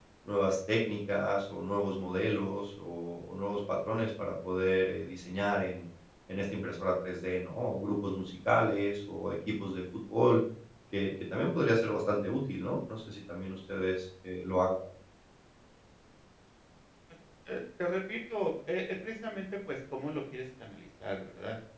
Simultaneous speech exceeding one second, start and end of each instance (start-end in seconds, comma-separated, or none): none